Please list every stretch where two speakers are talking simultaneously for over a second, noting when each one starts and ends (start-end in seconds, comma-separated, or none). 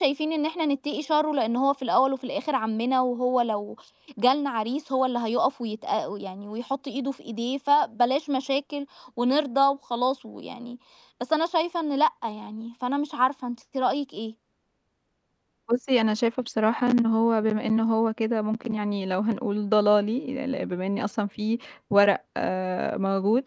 none